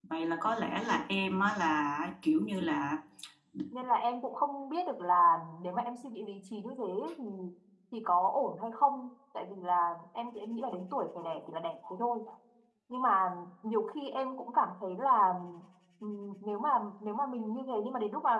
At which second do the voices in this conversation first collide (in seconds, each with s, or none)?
none